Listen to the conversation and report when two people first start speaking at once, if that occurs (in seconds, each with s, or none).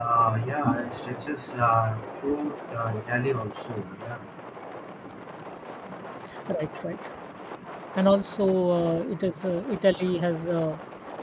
none